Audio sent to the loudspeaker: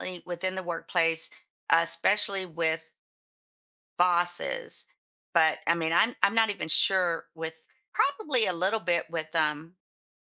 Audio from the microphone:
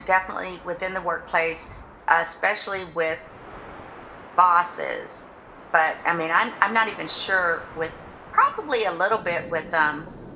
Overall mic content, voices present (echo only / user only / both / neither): echo only